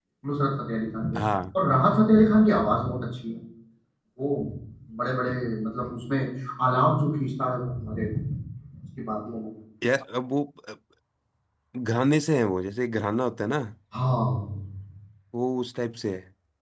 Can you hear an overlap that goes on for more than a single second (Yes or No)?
No